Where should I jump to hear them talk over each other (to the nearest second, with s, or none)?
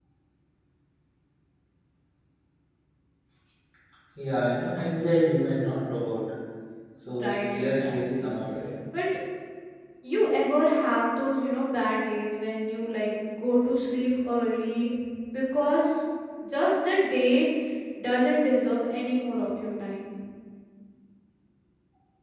7 s